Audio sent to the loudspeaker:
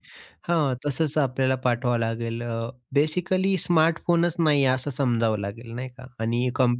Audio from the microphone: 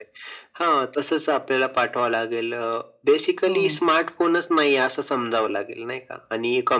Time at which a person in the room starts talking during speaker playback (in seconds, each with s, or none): 3.5 s